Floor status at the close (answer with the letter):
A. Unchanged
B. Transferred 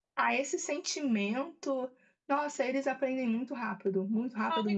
B